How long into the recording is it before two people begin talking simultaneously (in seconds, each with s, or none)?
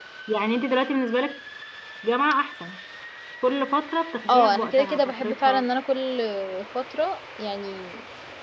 4.3 s